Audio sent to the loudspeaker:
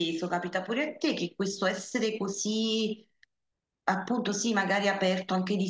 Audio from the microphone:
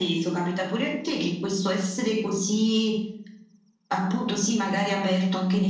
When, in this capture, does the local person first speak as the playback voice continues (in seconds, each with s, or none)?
none